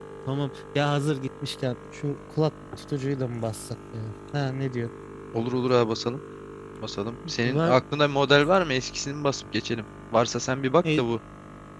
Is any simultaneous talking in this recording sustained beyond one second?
No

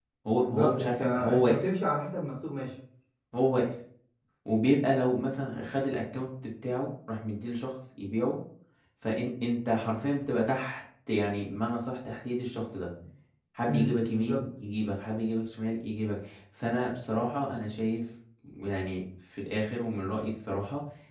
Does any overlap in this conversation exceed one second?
Yes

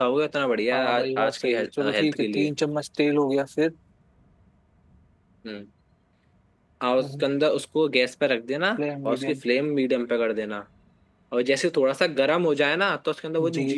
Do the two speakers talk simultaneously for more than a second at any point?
Yes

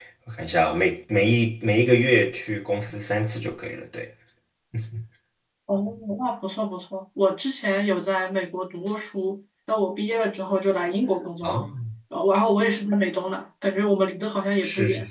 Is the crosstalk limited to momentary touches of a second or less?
Yes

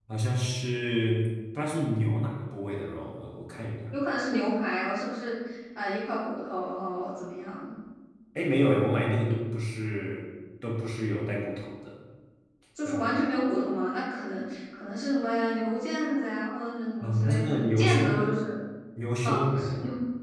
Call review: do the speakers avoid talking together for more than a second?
No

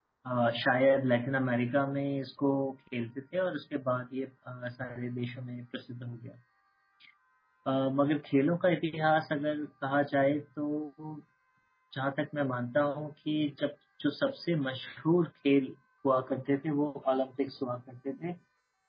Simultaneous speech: No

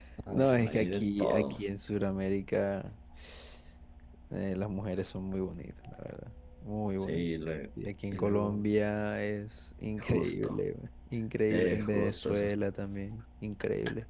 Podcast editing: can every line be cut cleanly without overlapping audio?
No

